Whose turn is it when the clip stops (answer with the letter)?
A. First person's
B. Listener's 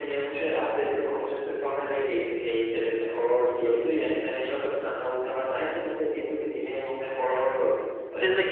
B